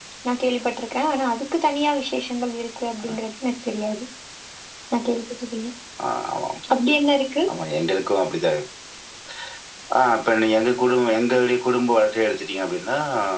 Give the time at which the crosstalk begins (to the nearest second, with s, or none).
none